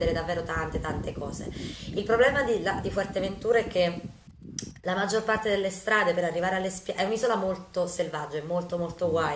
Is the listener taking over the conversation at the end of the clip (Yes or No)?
No